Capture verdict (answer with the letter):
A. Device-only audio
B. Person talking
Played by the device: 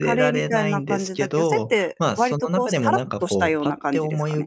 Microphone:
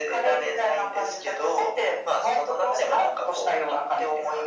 A